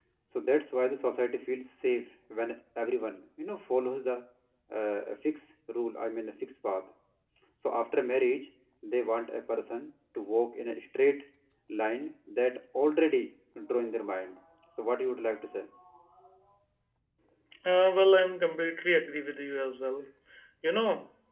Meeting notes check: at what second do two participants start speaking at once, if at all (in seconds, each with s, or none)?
none